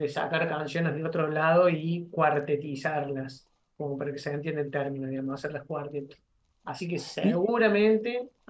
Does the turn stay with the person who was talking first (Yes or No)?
Yes